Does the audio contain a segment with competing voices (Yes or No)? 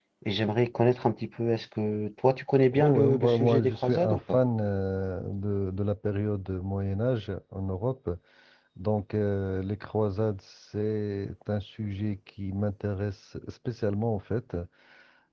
Yes